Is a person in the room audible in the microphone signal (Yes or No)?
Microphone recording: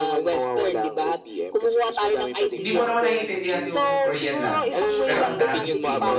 Yes